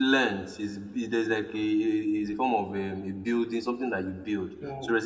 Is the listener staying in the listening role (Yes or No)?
Yes